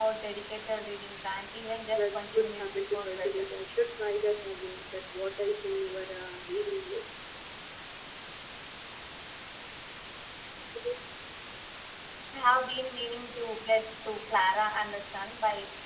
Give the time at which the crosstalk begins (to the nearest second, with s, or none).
2 s